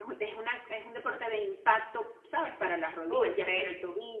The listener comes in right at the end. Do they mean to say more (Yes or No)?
No